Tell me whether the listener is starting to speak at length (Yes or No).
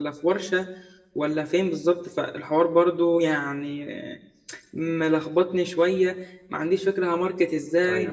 No